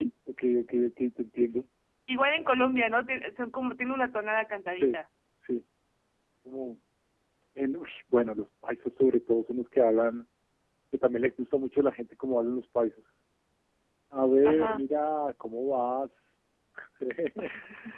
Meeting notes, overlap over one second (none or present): none